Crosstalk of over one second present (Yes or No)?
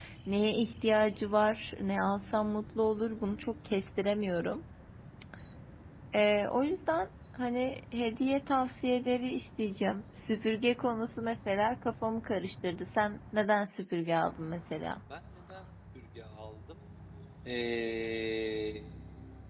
No